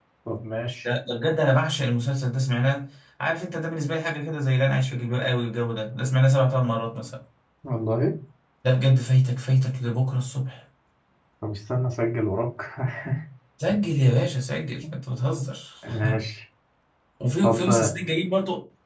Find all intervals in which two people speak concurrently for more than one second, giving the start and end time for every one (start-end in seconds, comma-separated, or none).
none